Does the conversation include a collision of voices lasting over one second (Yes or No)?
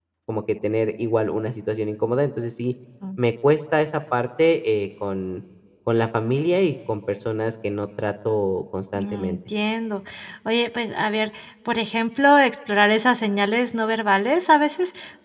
No